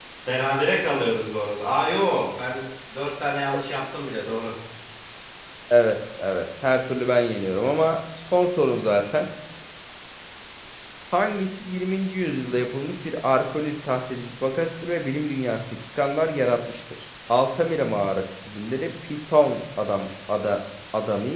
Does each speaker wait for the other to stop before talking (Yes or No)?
Yes